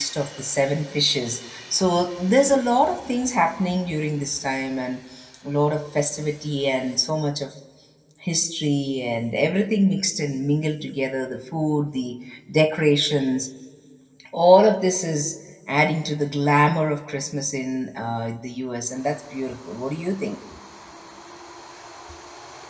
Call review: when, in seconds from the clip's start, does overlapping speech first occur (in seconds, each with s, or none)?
none